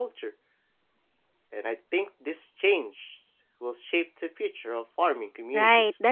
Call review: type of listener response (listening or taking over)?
taking over